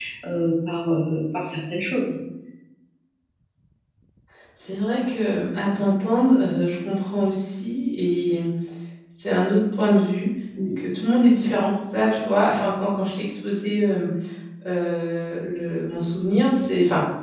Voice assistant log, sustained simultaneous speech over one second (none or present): none